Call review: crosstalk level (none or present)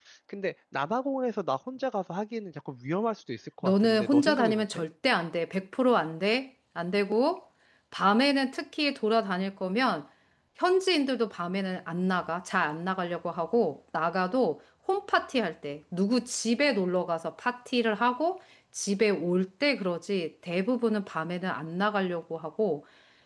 present